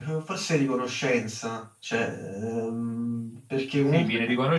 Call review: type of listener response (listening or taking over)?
taking over